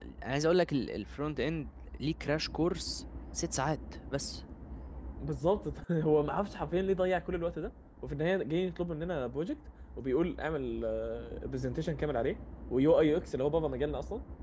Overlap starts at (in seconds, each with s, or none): none